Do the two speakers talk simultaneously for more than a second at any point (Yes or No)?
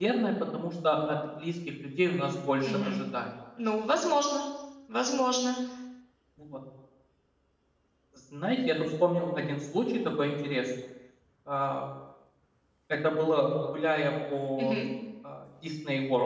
No